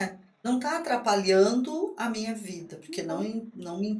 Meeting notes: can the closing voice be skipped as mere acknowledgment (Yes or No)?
Yes